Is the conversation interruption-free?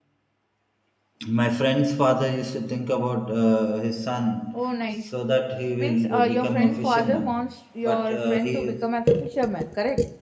No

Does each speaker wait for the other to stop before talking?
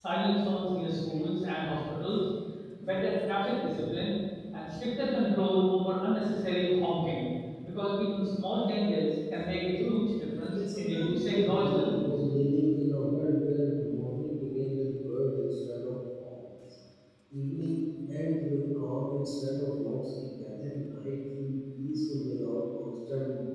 No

